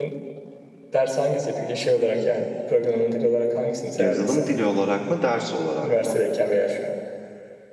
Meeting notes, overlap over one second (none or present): none